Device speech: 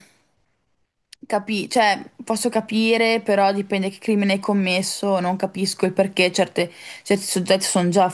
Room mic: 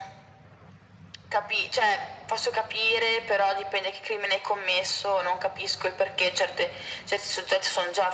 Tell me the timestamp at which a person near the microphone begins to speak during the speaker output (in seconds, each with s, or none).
none